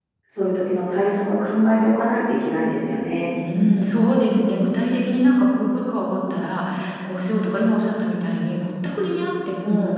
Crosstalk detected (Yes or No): No